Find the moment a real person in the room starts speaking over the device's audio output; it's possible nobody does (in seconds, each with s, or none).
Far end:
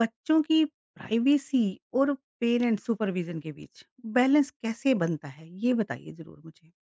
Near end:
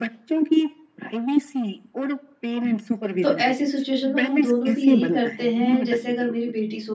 3.2 s